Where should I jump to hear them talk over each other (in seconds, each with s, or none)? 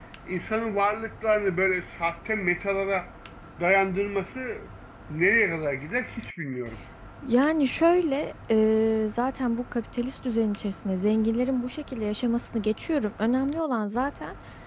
none